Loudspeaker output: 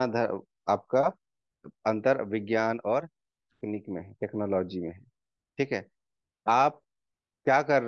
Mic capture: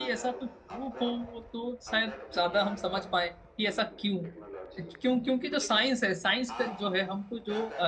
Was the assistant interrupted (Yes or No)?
Yes